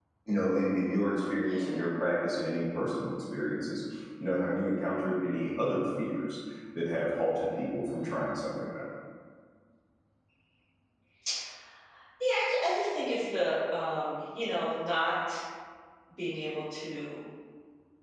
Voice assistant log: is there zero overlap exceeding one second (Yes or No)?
Yes